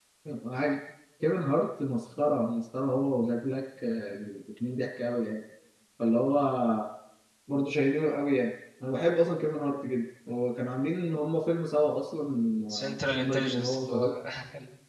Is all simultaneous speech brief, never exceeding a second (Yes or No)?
No